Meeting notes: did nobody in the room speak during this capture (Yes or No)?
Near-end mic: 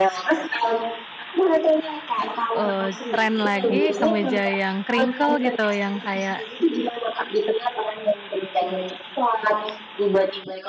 No